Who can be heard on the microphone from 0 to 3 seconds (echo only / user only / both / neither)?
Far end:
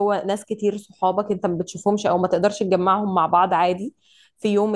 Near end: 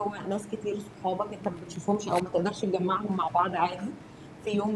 echo only